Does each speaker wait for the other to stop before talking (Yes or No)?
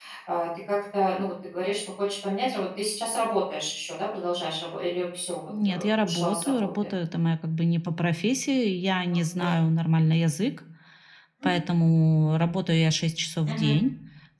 No